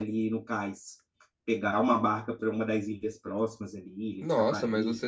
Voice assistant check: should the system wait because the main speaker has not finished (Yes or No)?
No